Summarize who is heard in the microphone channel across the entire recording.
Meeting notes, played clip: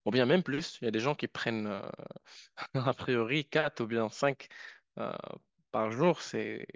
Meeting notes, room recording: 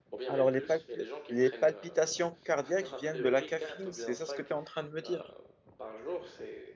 both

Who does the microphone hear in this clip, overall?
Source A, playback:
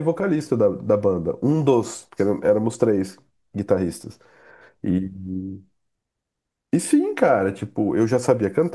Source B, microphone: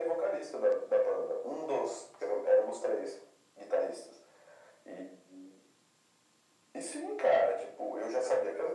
echo only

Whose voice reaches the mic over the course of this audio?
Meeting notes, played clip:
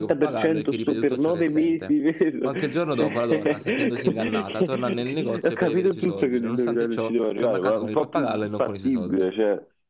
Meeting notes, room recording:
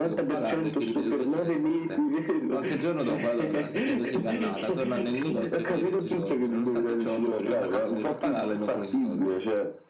echo only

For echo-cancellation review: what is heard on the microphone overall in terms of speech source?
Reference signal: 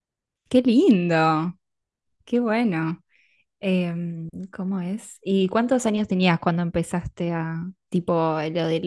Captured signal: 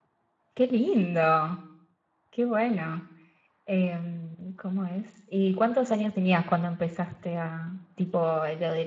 echo only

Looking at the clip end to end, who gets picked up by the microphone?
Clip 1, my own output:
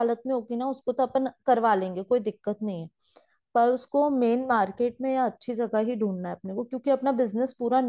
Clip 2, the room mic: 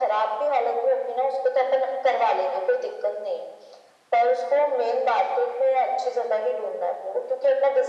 echo only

